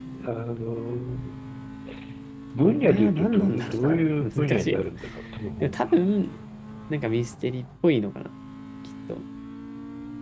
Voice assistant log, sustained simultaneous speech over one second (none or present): present